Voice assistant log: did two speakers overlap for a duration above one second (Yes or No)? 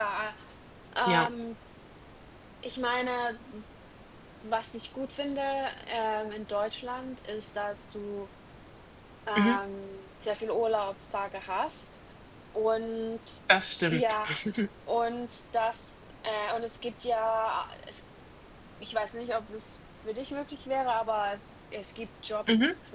No